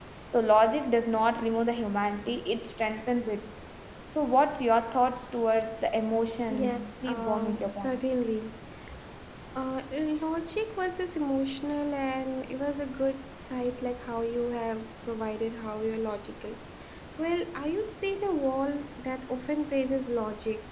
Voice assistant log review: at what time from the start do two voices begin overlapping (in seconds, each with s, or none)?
6.5 s